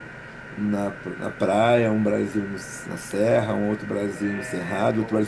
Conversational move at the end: listening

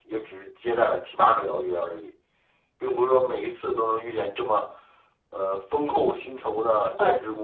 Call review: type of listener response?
taking over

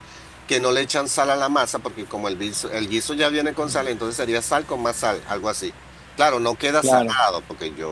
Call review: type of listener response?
listening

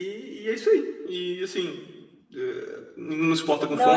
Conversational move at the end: listening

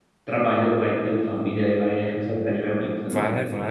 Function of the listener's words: taking over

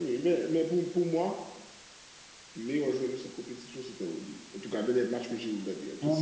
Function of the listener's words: taking over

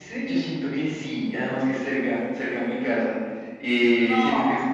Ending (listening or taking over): listening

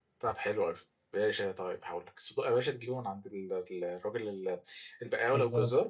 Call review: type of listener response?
listening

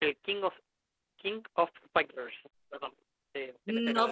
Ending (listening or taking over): taking over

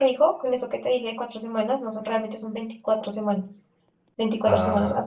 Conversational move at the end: listening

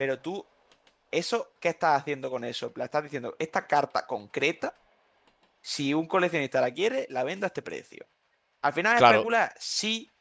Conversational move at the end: listening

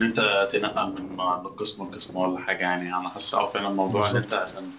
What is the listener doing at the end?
listening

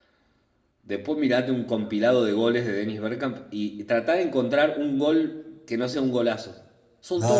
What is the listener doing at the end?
taking over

